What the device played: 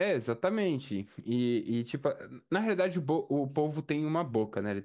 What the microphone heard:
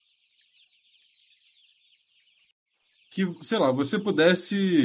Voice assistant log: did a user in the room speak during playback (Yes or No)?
Yes